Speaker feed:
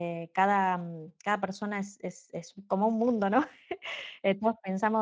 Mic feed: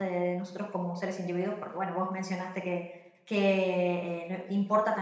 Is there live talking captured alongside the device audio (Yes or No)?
Yes